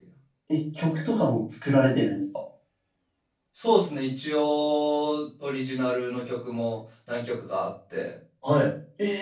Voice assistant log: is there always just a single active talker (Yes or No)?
Yes